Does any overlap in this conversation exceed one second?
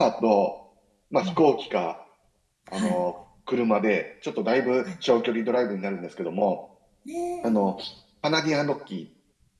No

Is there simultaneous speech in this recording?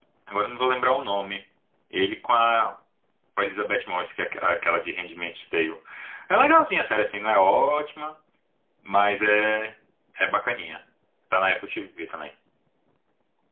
No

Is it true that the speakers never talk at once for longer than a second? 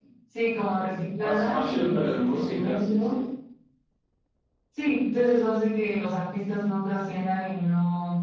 No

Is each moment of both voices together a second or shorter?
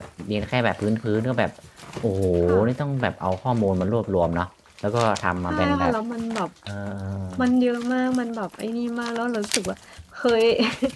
Yes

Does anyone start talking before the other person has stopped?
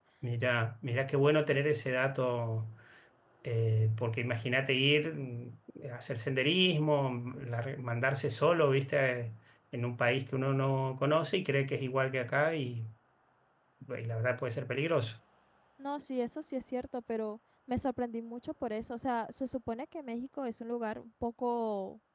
No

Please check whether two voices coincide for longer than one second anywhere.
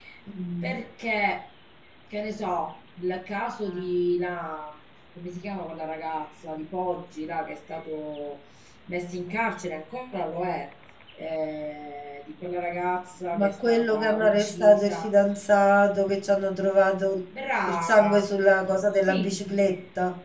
Yes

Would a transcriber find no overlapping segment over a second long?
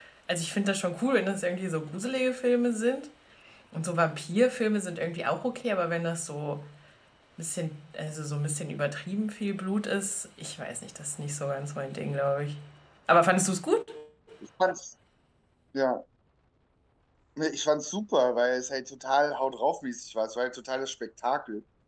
Yes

